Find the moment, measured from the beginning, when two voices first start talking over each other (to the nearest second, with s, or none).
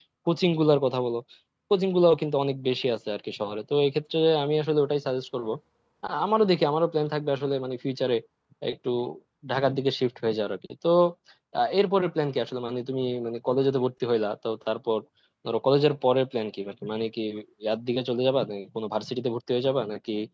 none